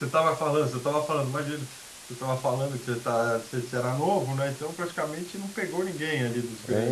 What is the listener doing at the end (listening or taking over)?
taking over